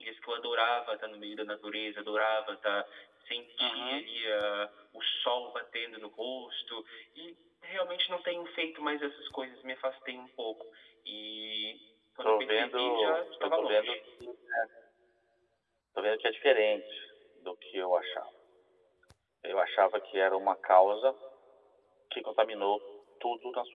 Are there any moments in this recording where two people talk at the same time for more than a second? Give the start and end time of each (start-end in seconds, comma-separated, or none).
12.2-14.0